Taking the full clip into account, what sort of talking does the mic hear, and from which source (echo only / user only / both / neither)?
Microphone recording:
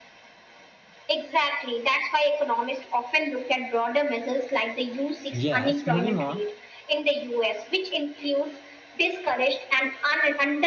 both